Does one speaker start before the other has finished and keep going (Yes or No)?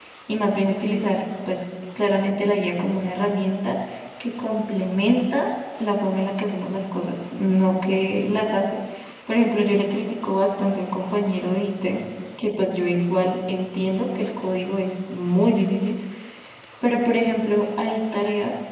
No